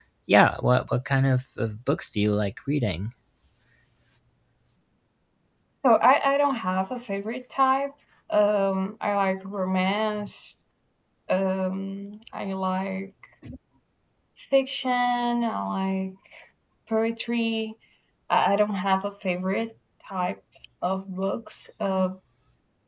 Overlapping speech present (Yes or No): No